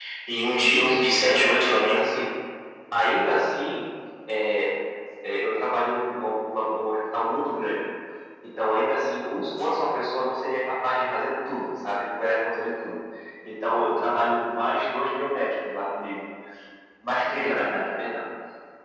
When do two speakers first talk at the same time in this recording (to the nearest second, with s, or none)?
1 s